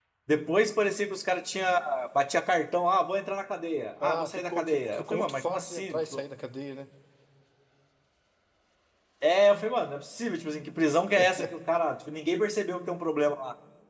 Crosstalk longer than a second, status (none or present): present